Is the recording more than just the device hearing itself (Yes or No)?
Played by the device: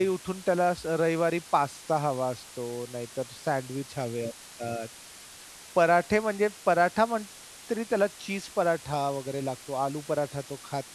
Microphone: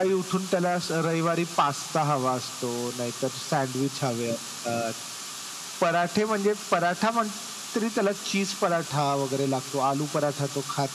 No